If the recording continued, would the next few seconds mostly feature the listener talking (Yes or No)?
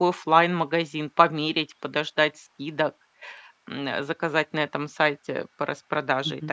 Yes